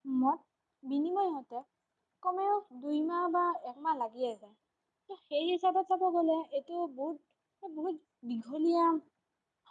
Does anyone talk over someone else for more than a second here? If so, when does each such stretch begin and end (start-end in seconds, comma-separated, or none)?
none